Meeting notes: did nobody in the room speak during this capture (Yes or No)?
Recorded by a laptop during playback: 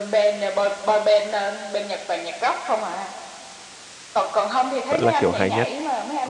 No